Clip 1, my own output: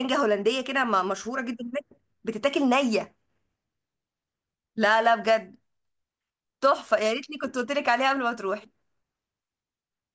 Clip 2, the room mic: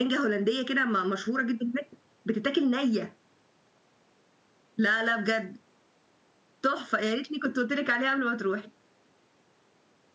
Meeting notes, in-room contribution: none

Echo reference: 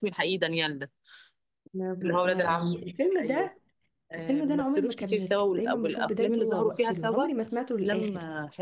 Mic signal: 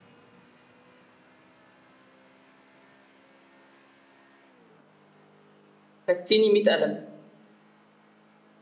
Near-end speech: present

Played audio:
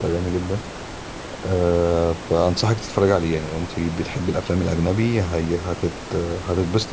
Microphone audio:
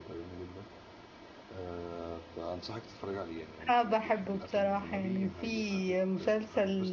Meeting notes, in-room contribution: present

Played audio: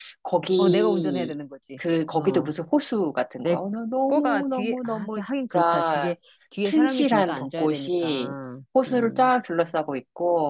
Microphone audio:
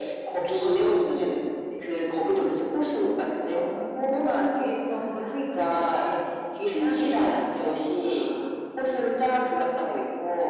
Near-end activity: none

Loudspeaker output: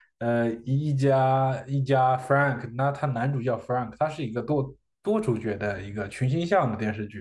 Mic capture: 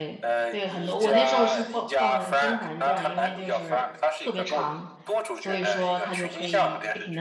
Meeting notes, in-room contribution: present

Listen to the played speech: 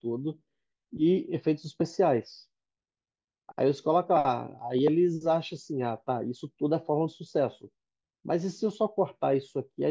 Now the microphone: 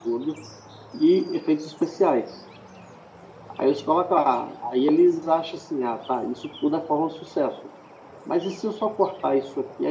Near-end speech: none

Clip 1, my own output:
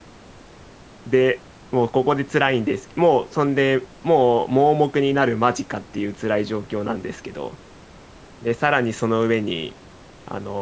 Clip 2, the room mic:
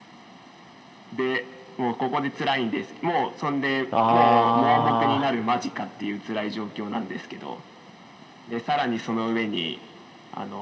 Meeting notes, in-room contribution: present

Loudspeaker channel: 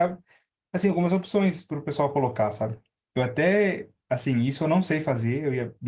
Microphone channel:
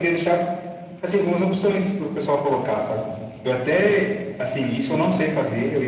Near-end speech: none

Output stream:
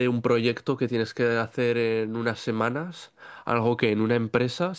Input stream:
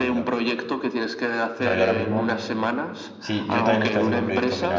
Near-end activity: present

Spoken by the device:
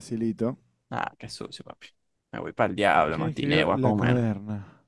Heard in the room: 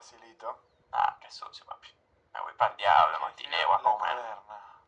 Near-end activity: none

